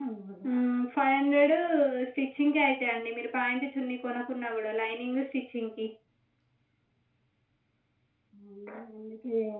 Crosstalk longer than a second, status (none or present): none